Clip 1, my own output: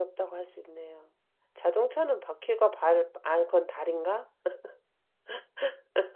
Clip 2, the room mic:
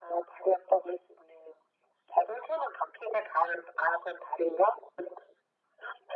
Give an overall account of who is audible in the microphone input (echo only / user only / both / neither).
echo only